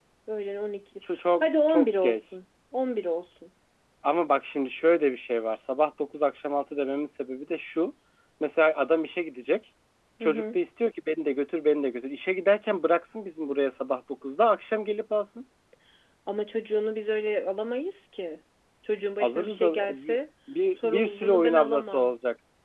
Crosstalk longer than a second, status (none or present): present